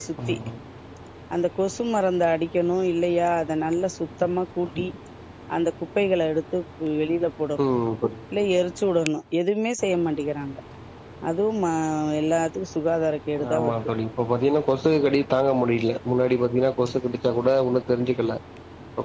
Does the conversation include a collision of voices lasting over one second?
No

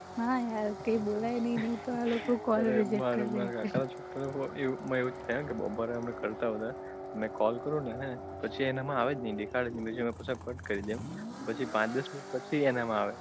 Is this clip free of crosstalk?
No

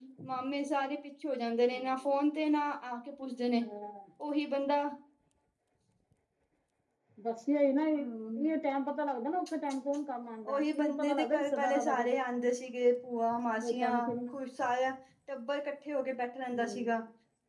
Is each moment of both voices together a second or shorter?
No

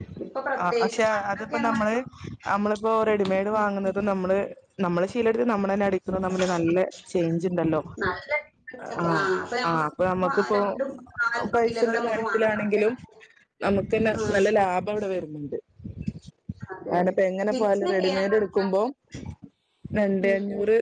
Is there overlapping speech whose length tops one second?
Yes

